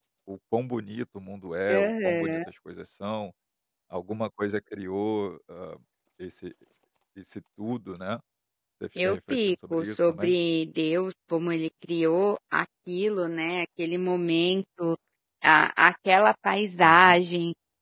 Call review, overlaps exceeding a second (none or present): present